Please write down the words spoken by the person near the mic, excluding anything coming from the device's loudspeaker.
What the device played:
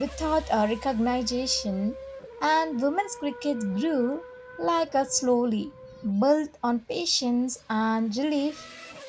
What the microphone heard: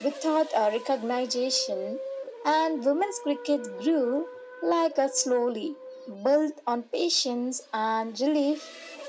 none

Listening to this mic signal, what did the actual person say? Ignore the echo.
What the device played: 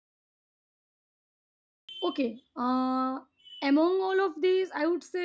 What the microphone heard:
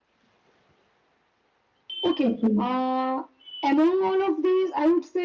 Okay.

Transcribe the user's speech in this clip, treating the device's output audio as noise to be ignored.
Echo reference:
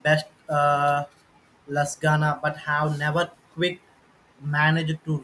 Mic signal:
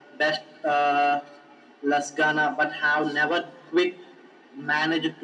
none

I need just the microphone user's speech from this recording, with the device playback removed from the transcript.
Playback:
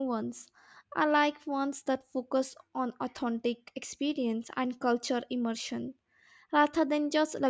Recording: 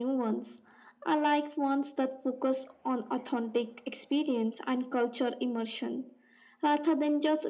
none

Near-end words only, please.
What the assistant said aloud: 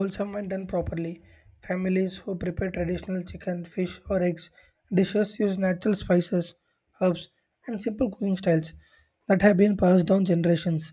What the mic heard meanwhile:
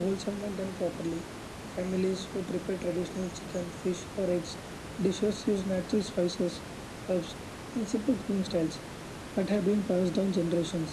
none

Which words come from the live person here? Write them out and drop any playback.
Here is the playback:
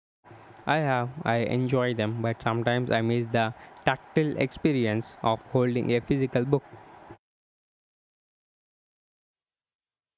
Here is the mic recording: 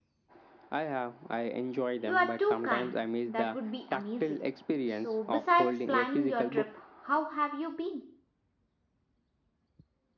You are too kind. That would be amazing. So, besides planning your trip, how have you been?

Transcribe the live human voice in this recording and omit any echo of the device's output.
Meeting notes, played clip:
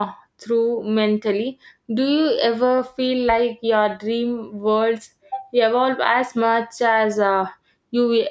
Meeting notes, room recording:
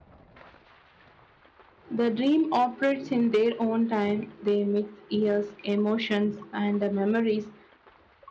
the dream operates in their own time. They mix years, emotions, and uh, memories,

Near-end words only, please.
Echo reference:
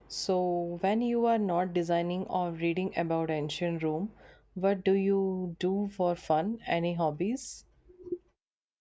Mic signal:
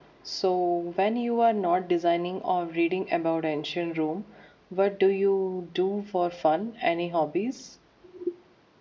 none

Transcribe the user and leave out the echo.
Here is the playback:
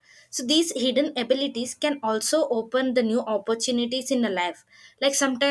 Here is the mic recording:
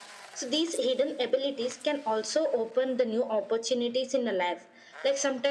none

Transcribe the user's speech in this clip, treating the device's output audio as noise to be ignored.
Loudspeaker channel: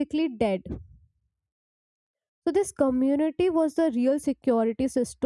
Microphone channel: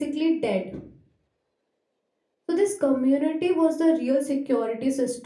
none

